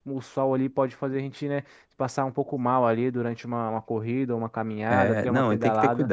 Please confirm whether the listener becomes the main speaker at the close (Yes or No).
Yes